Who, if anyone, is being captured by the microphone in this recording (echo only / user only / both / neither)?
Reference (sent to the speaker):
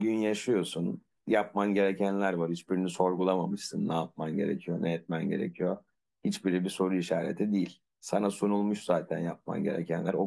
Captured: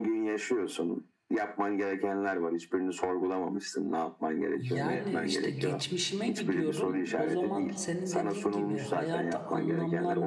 both